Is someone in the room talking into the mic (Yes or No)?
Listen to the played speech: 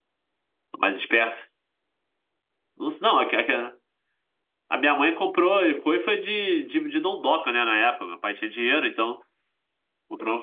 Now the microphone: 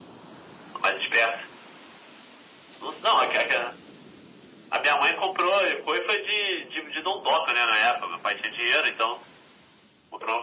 No